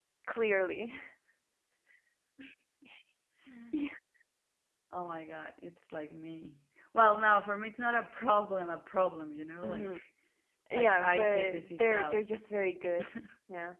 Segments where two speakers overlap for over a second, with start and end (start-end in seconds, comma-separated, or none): 10.7-12.3